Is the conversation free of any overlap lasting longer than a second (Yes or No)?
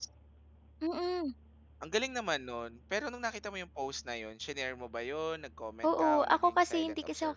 No